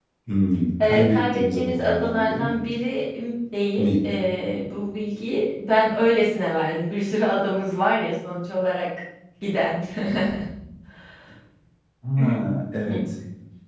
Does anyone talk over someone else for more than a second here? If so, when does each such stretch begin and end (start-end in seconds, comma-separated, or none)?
0.8-2.5